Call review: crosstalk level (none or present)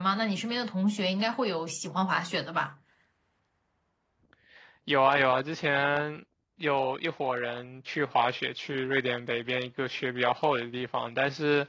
none